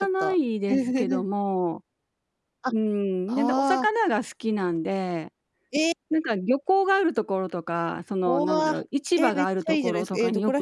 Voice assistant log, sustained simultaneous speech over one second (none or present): present